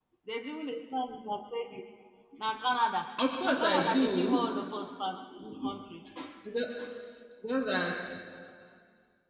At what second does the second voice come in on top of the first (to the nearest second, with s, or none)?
3 s